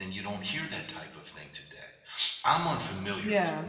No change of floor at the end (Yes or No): Yes